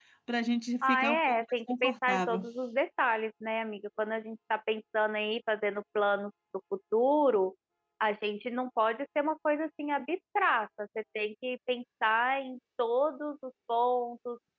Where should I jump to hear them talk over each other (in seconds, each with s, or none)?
0.8 s